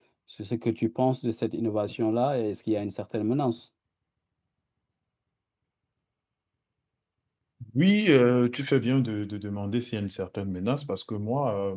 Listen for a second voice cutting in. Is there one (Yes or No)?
No